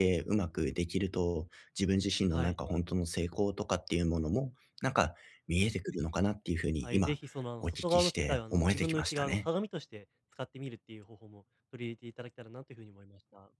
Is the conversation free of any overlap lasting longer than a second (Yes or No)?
No